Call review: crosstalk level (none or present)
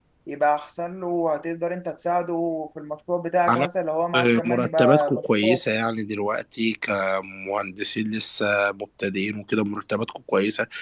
present